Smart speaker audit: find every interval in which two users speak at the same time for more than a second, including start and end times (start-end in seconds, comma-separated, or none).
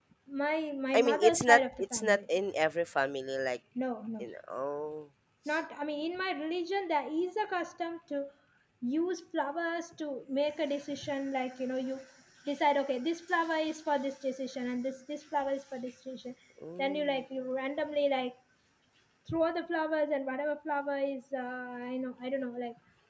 0.9-2.2